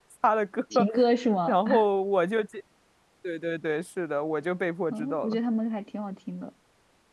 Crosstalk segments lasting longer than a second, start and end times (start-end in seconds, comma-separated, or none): none